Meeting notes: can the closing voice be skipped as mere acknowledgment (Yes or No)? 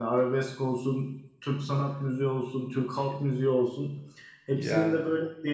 Yes